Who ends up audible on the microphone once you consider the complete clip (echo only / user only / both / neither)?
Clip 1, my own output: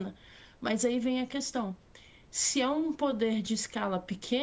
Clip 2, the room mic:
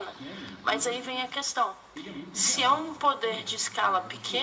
both